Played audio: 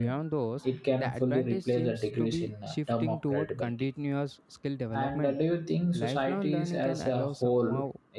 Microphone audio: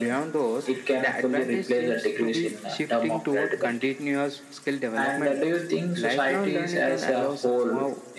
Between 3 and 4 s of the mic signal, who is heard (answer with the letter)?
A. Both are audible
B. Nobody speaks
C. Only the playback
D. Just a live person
C